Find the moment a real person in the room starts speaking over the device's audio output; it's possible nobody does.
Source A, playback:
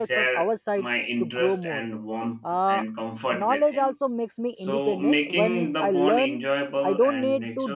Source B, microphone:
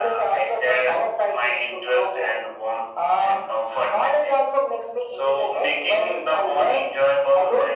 none

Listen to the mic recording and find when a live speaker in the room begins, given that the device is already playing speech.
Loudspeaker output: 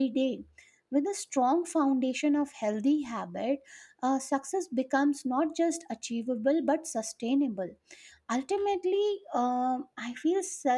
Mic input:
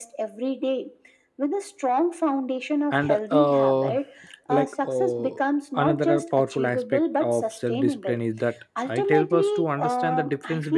2.9 s

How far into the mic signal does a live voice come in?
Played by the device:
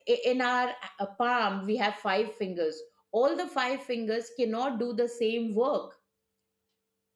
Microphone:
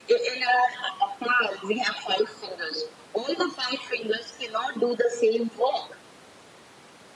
none

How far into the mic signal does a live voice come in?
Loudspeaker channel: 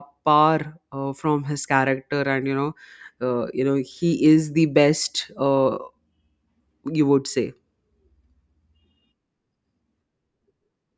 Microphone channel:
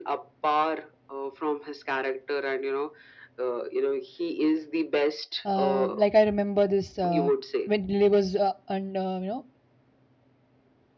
5.4 s

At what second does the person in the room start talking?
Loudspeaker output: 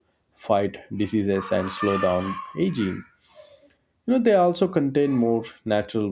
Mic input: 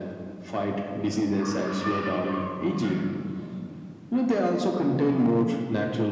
none

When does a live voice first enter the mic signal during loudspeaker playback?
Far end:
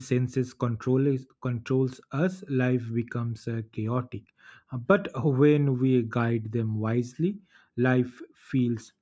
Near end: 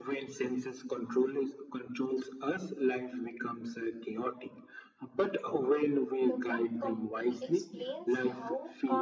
6.2 s

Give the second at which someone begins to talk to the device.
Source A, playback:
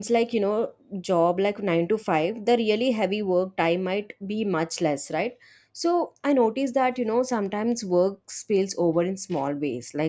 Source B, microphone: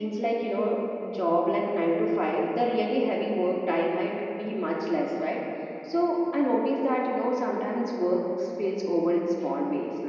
none

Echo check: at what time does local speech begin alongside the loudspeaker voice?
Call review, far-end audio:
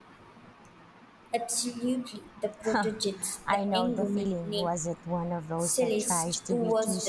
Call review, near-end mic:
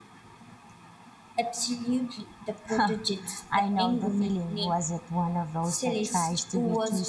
none

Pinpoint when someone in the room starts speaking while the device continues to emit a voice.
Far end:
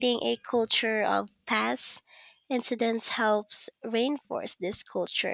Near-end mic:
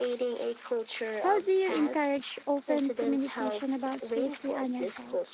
1.2 s

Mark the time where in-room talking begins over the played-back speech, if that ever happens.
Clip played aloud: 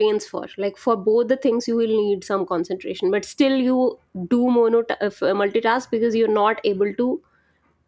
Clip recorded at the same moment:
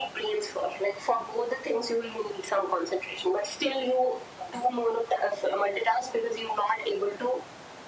none

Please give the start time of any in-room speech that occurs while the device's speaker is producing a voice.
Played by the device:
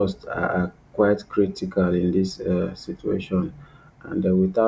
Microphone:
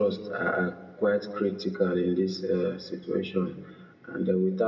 none

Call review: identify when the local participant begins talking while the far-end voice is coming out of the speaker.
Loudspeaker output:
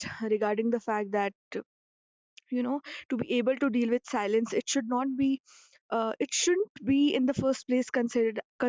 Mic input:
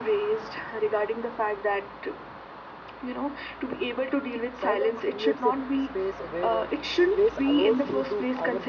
4.6 s

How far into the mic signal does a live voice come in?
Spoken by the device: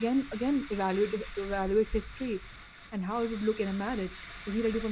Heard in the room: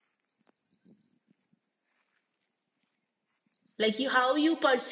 3.8 s

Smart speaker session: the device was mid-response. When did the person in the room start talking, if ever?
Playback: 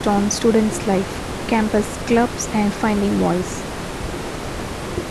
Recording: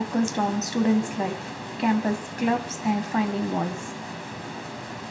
none

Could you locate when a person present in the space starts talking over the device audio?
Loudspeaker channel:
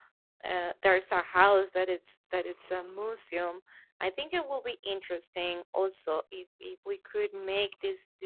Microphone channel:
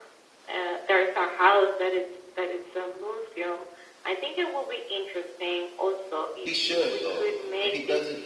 6.4 s

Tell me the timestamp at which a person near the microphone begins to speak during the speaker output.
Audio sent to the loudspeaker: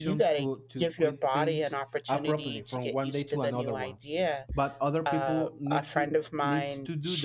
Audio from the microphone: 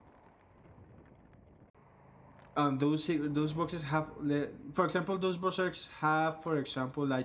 2.5 s

